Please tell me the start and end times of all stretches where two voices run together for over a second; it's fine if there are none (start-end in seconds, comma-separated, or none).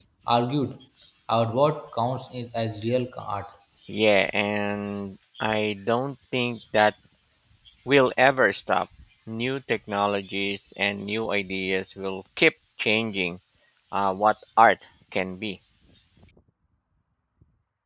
none